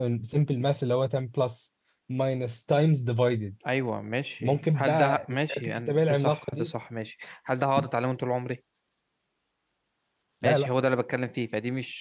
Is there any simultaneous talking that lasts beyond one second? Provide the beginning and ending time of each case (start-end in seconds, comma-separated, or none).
4.4-6.7